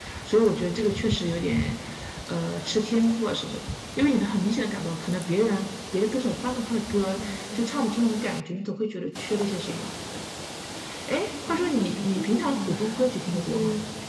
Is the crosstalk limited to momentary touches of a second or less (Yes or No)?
No